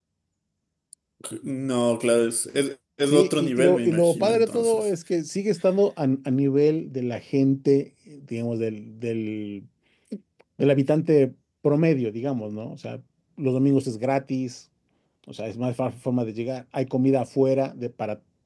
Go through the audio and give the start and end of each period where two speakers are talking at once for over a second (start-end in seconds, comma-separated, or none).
3.1-4.9